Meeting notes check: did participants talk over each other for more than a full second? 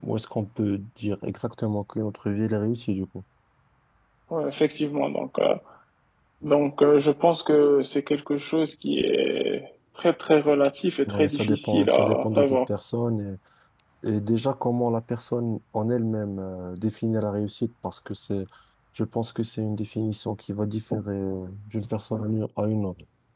Yes, from 11.1 s

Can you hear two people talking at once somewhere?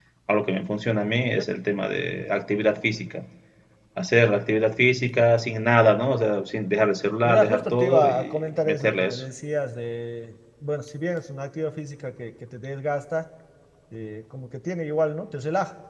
Yes, from 7.2 s

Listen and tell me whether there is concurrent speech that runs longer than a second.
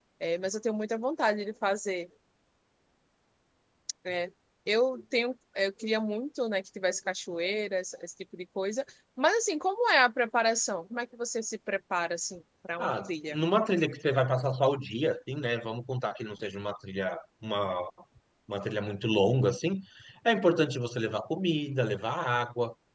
No

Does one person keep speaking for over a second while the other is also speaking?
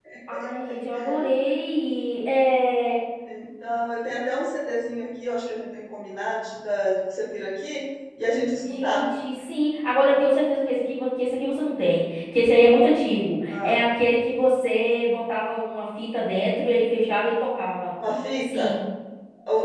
No

